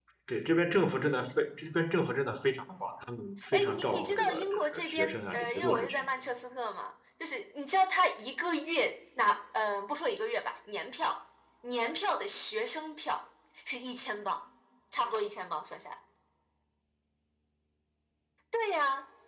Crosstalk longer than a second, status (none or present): present